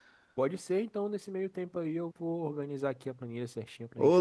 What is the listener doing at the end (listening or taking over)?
taking over